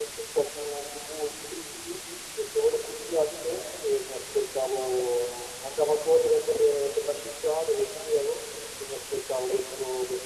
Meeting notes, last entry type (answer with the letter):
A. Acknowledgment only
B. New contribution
A